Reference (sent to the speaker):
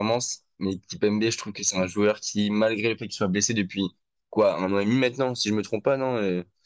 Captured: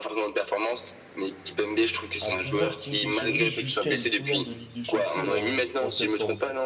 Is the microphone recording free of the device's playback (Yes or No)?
No